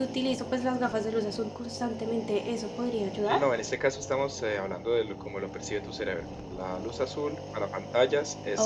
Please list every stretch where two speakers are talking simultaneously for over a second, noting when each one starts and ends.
none

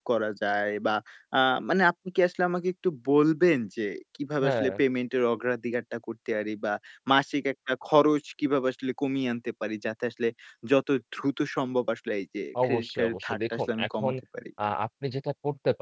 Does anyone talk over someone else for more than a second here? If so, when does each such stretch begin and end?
12.6-14.1

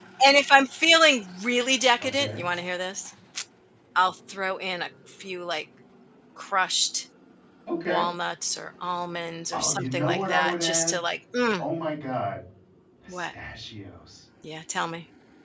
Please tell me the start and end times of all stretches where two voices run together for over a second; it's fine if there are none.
9.5-10.9

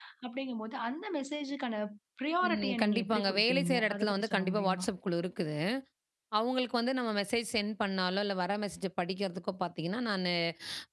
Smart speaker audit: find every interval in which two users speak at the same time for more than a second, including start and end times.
2.5-4.8

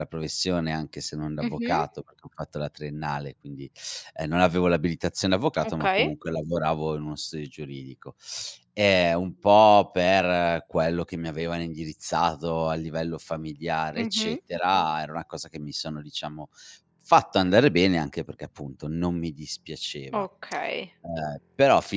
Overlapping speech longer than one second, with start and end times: none

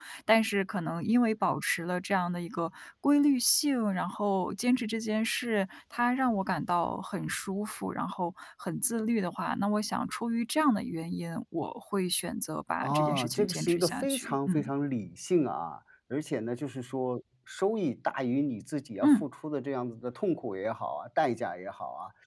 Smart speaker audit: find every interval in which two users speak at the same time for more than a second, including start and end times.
12.8-14.7

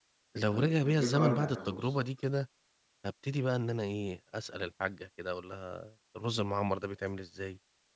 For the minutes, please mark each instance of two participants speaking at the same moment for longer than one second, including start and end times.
0.5-2.0

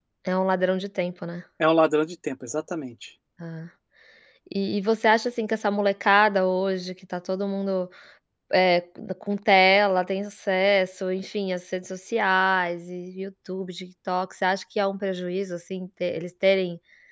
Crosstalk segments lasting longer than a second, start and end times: none

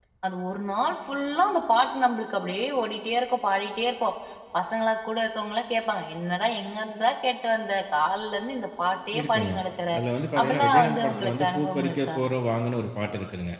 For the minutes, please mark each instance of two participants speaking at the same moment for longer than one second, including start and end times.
10.4-12.2

